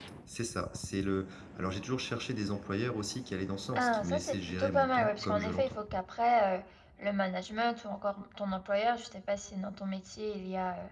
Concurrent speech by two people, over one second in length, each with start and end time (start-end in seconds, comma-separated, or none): 3.8-5.8